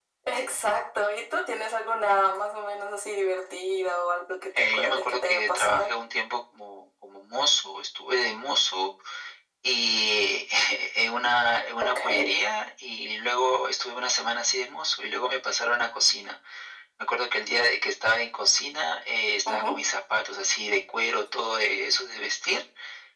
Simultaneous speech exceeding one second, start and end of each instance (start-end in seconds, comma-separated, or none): 4.6-5.9